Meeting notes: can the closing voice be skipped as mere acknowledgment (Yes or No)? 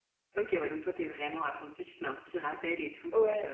No